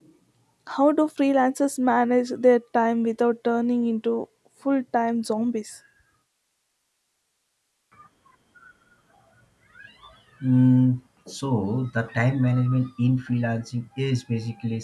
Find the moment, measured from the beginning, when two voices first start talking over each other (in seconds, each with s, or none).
none